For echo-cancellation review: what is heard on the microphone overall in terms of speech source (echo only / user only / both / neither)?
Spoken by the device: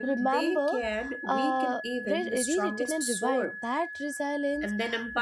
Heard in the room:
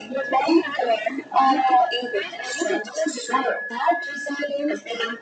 echo only